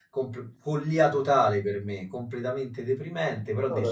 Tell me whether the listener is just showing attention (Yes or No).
Yes